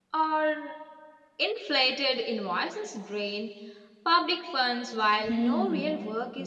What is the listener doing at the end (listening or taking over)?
taking over